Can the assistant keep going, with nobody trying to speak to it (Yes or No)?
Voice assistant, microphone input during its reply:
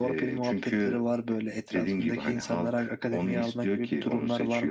Yes